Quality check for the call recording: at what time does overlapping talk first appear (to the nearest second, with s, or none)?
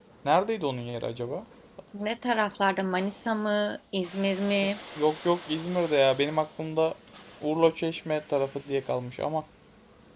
none